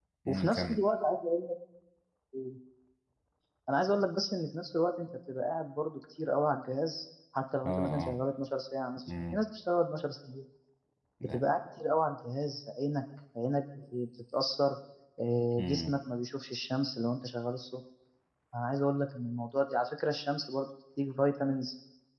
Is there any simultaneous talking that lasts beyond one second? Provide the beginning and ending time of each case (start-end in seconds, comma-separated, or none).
none